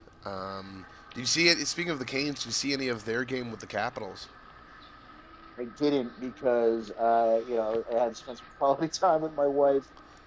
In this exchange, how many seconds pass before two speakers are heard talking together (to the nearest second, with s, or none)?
none